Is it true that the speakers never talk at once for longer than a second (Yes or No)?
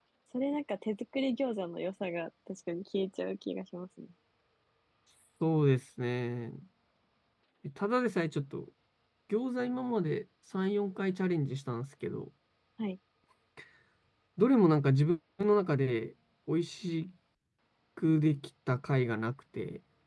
Yes